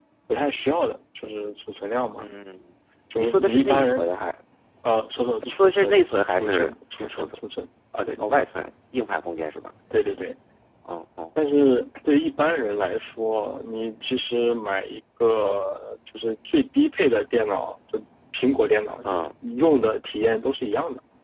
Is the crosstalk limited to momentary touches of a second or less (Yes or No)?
No